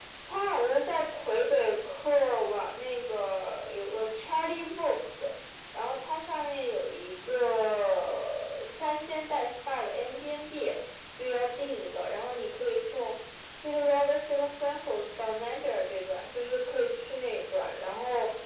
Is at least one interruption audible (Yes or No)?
No